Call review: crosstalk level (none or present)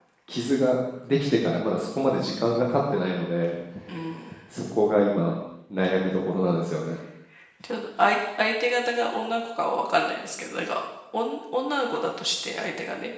none